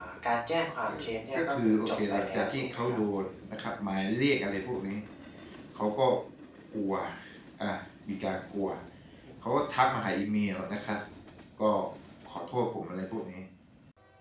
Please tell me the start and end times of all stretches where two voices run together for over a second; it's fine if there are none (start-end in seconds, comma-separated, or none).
1.4-3.0